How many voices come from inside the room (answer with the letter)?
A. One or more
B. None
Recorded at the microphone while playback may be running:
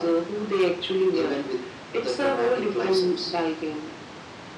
B